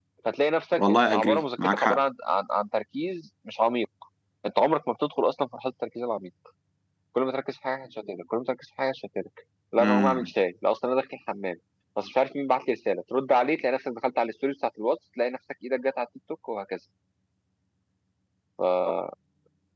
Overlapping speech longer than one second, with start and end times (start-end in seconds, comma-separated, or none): 0.8-2.0